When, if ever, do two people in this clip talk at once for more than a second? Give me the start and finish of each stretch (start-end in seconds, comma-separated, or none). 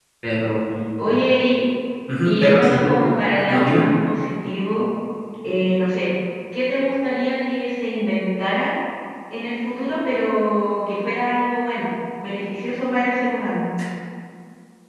2.2-3.9